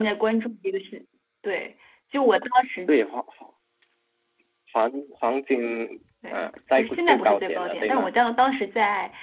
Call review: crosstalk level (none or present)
present